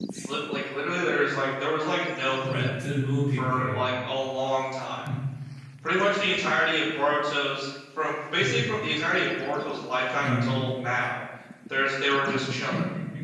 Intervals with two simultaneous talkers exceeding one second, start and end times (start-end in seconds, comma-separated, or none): none